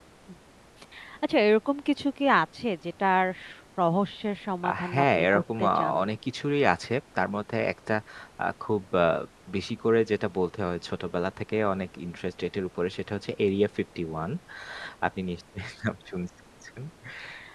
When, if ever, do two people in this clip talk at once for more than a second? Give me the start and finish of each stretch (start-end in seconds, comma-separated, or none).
4.7-6.0